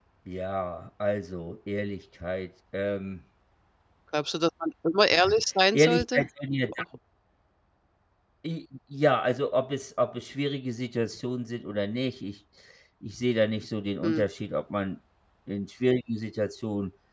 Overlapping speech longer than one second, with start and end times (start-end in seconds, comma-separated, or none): none